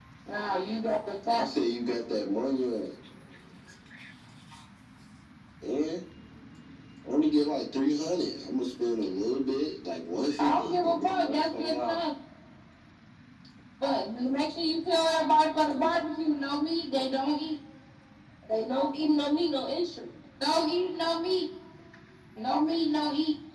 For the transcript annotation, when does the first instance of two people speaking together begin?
10.4 s

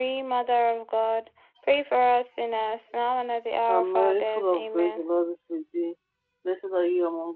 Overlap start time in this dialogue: 3.7 s

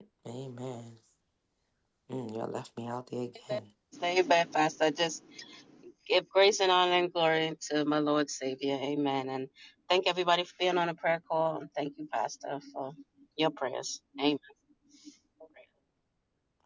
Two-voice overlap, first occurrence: none

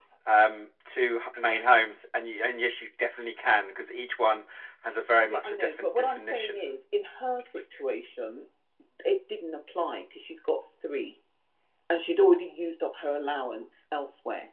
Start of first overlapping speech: 5.2 s

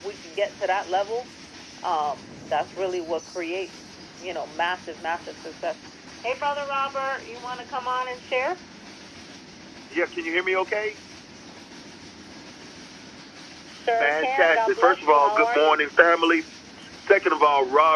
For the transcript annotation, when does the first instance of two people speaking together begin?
14.0 s

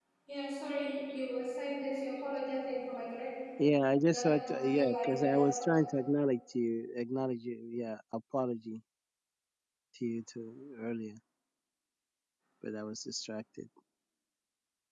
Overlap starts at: 4.1 s

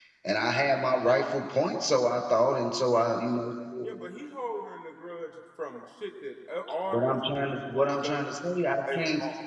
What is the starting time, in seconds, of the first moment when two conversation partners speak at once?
6.9 s

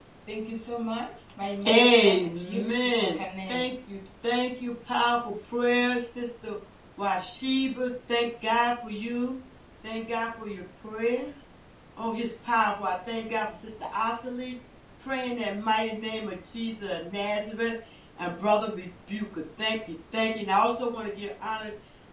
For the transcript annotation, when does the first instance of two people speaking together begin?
1.6 s

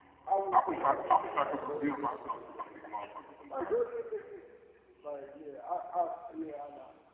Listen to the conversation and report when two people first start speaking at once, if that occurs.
0.5 s

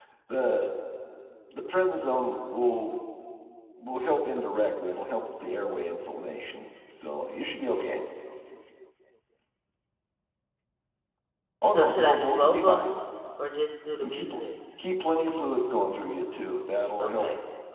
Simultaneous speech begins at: 11.7 s

